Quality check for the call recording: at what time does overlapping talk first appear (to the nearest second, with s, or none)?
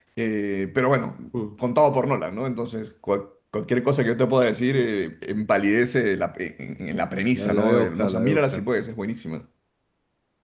7 s